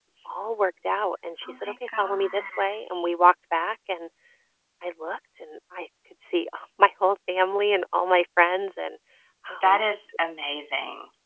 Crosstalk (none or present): present